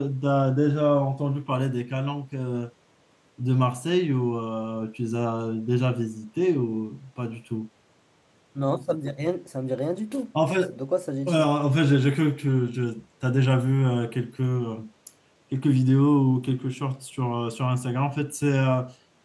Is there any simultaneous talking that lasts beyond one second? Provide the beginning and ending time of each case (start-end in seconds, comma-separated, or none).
none